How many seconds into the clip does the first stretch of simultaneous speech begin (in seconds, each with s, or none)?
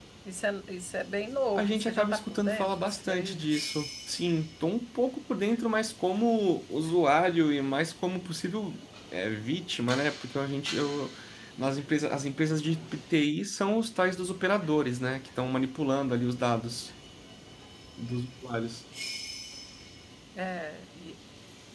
1.6 s